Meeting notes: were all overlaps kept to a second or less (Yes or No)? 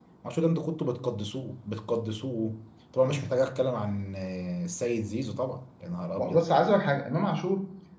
Yes